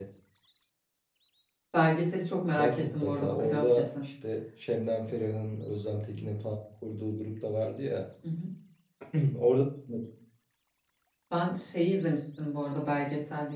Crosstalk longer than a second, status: present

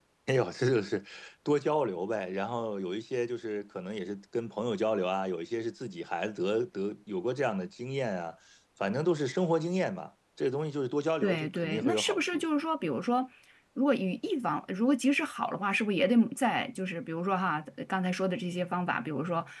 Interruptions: present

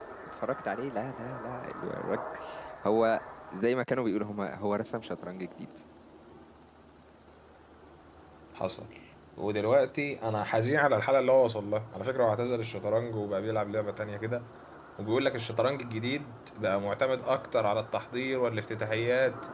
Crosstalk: none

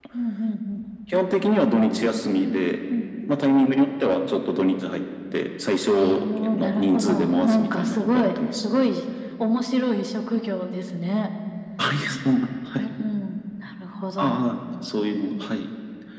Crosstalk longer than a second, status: present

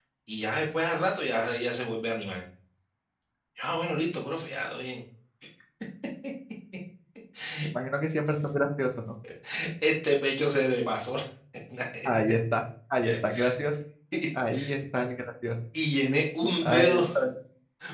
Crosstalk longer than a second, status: none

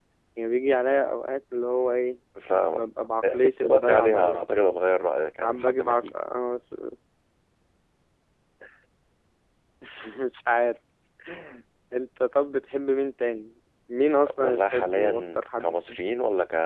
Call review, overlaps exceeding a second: present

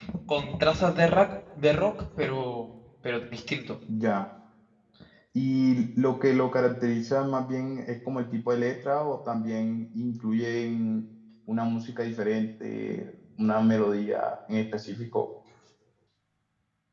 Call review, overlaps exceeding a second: none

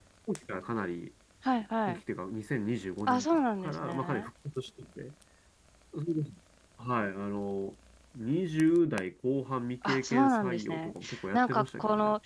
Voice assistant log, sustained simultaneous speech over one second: present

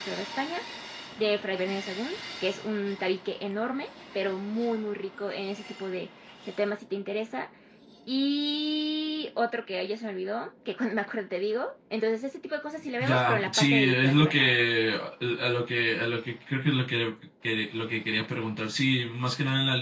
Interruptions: present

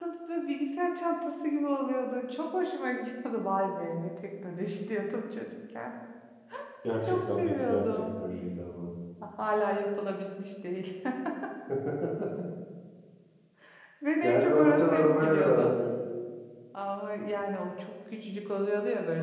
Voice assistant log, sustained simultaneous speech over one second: present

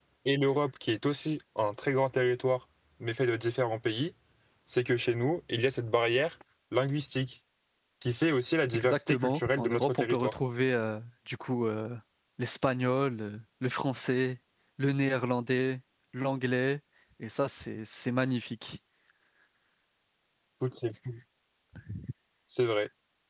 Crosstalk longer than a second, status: present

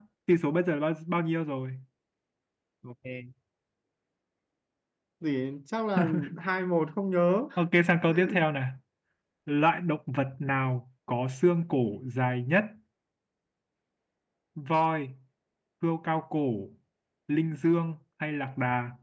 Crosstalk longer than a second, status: none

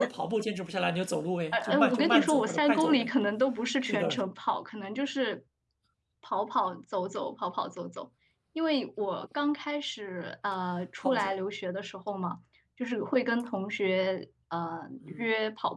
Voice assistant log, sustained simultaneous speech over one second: present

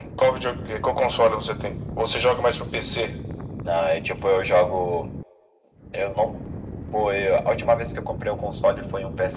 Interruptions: none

